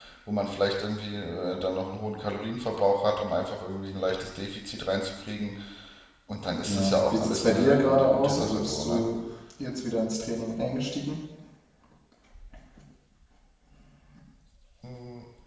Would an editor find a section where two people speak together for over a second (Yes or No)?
Yes